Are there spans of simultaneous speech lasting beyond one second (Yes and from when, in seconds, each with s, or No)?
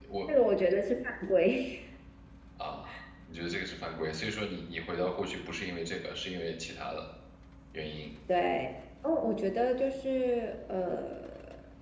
No